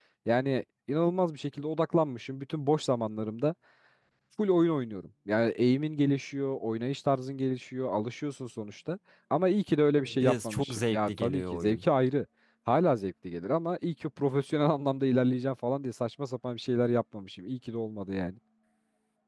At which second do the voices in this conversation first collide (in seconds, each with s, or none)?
10.2 s